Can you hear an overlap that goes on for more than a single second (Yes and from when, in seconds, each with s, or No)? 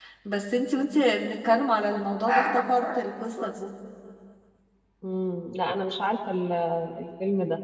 No